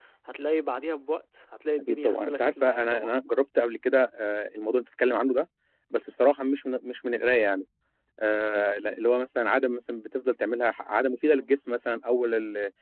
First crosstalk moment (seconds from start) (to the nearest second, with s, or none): 2 s